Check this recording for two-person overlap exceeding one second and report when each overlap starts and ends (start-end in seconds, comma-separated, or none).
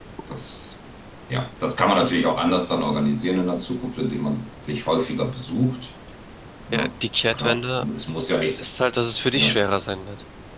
none